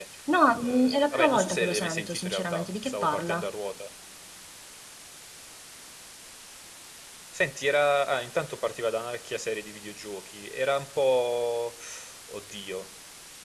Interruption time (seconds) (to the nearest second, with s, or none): 1 s